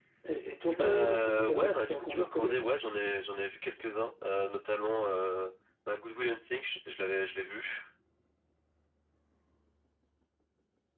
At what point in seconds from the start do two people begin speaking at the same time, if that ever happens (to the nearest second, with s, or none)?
1 s